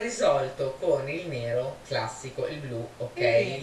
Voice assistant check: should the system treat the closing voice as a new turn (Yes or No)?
No